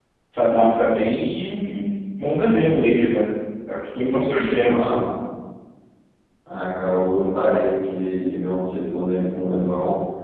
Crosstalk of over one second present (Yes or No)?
No